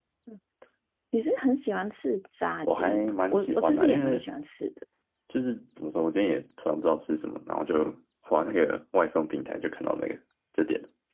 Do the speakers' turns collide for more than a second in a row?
Yes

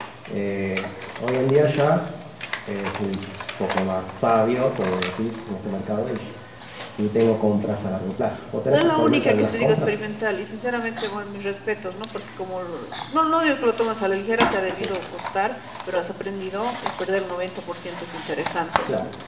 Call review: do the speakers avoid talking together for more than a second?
No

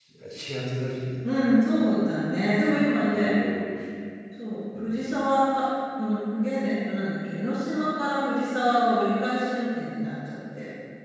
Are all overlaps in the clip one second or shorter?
Yes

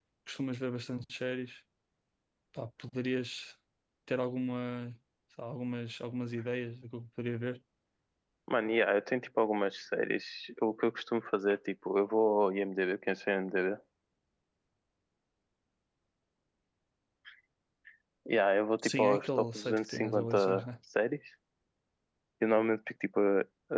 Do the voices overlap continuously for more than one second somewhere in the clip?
Yes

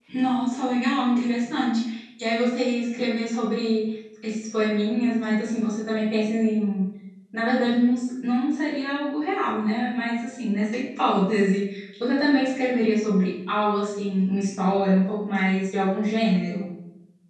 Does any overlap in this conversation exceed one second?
No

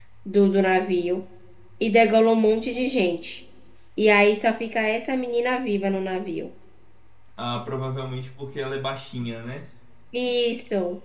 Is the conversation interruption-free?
Yes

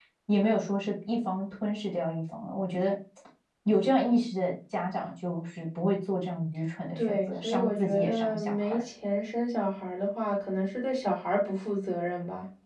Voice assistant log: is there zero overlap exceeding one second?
No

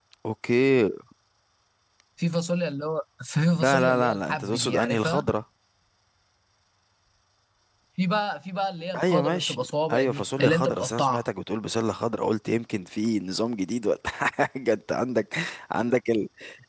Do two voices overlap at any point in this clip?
Yes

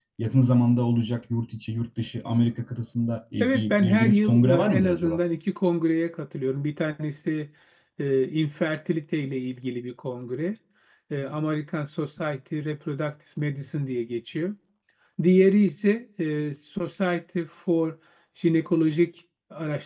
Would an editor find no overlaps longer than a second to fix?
No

